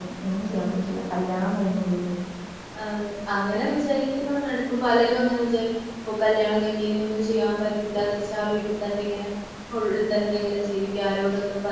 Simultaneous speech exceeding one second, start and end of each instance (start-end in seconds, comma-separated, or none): none